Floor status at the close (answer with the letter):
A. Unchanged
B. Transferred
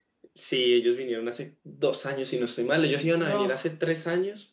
A